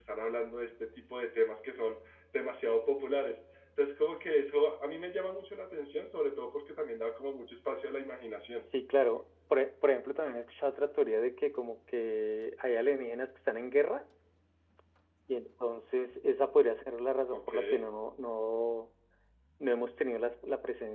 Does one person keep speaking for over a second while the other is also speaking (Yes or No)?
No